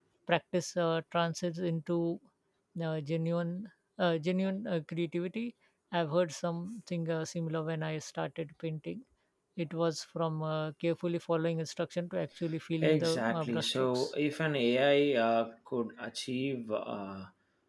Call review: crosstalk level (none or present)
present